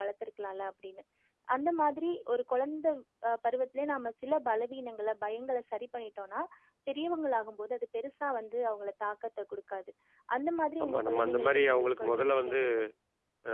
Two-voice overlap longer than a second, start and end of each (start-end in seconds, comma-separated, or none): 10.8-12.6